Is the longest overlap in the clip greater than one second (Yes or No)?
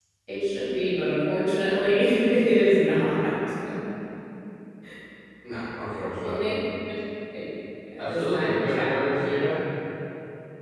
Yes